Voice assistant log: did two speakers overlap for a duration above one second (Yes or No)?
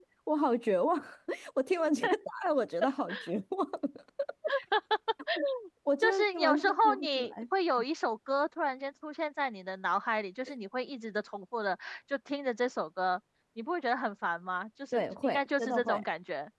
Yes